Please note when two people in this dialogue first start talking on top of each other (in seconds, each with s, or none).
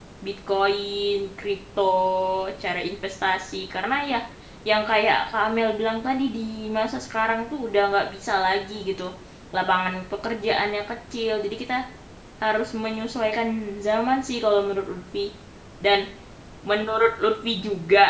none